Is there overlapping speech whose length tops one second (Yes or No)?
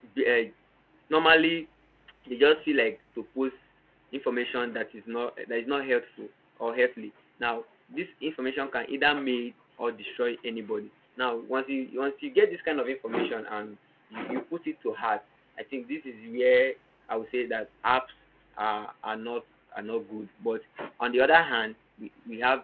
No